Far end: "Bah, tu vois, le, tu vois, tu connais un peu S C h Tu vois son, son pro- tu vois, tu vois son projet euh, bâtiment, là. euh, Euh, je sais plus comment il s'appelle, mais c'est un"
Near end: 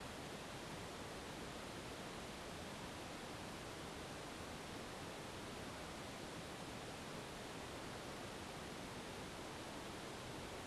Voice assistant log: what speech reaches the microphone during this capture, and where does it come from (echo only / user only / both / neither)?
neither